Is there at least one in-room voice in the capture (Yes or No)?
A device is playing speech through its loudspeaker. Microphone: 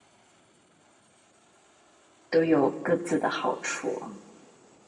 Yes